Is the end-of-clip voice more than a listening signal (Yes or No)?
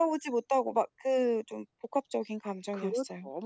Yes